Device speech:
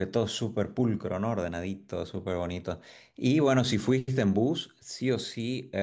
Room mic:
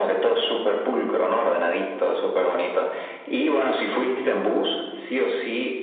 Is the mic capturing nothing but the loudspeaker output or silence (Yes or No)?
Yes